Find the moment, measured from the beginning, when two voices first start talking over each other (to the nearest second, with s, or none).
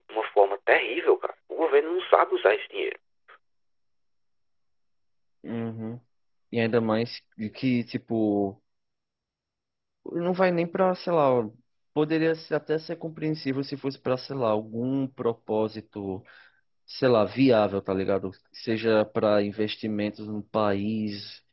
none